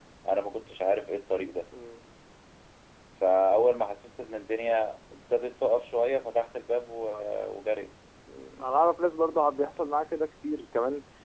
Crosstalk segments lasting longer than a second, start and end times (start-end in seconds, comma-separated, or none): none